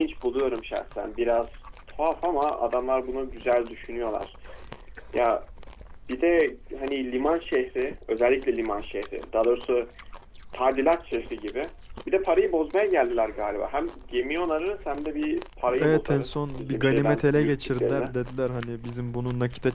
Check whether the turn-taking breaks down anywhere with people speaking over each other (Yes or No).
Yes